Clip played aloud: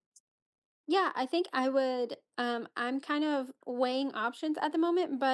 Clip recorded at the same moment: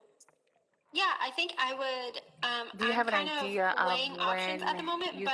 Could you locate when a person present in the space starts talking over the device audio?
3 s

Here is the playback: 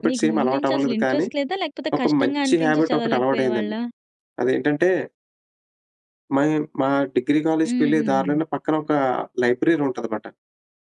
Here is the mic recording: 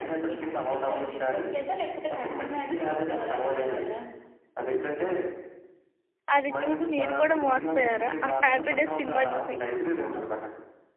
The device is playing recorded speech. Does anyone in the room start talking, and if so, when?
6 s

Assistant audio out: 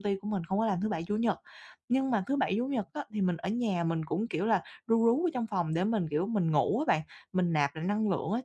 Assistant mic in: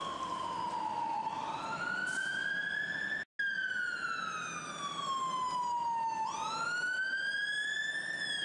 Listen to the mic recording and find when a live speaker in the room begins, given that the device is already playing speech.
none

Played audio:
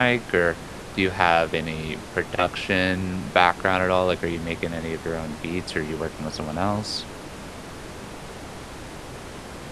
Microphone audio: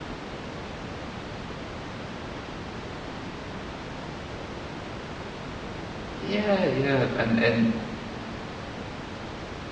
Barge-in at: 6 s

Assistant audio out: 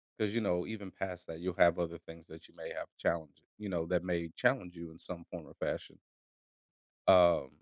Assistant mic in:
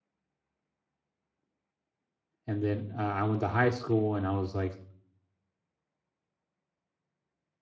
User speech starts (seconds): 2 s

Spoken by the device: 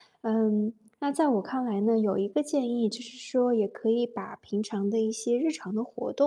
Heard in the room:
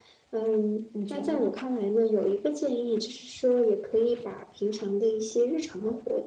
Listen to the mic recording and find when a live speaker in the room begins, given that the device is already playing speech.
1 s

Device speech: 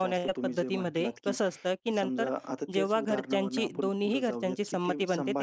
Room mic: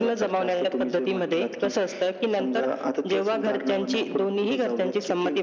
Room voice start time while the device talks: none

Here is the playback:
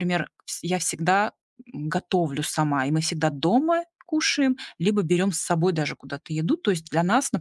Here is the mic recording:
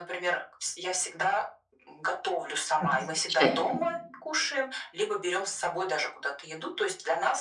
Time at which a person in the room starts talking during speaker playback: 3 s

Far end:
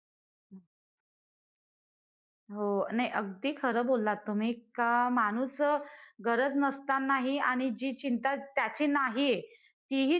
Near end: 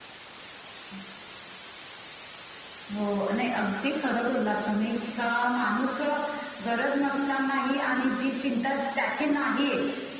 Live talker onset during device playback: none

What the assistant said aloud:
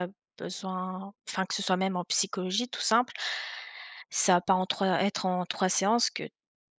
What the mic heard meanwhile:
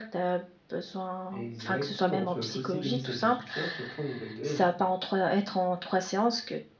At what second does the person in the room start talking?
1 s

